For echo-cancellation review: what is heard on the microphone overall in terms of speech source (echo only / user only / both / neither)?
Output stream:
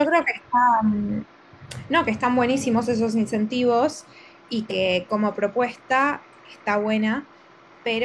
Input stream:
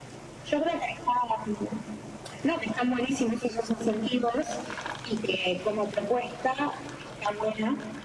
echo only